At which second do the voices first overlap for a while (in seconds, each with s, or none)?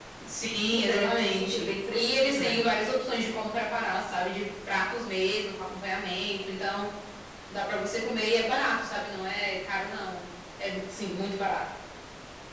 0.7 s